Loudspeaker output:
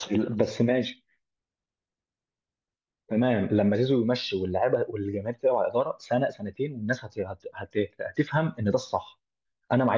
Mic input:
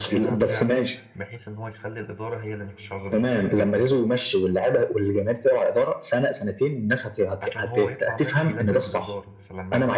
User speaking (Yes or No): Yes